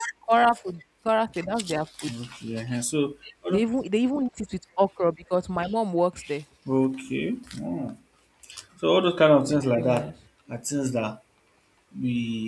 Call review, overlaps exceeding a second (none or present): none